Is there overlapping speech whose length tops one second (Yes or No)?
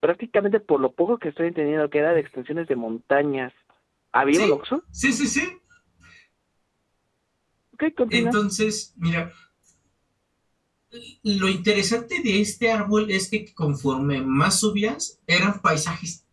No